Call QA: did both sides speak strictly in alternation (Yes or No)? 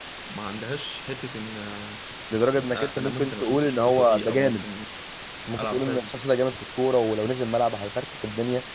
No